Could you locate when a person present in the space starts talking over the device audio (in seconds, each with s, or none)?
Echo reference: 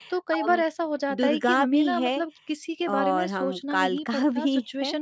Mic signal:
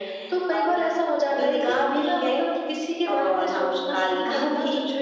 none